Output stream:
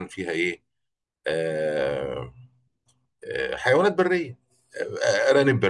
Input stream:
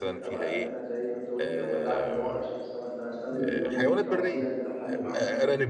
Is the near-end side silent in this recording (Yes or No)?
No